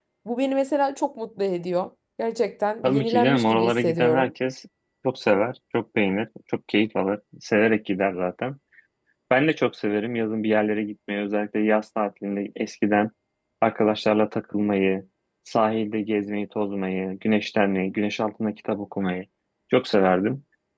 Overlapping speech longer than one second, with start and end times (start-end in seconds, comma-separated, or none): 2.8-4.3